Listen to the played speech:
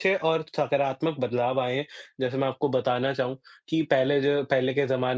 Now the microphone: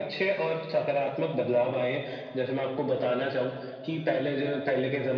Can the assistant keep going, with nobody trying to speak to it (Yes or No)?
Yes